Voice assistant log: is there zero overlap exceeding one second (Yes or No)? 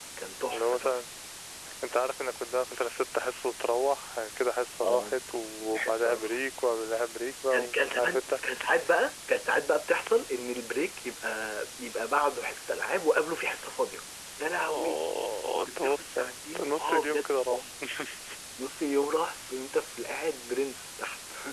No